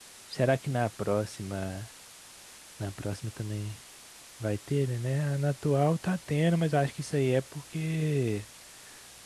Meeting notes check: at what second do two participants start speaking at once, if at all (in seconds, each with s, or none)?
none